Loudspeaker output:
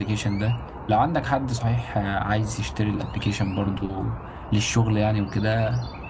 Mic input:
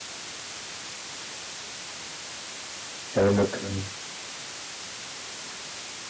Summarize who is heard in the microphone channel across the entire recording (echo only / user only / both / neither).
user only